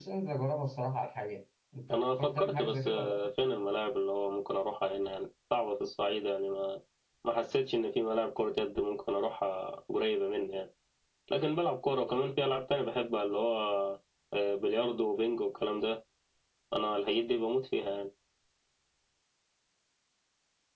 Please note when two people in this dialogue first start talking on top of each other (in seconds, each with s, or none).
1.9 s